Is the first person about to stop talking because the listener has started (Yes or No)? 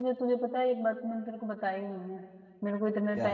No